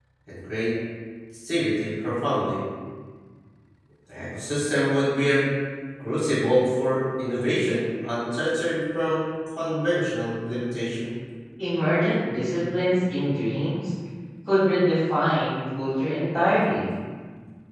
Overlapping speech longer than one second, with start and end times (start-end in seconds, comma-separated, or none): none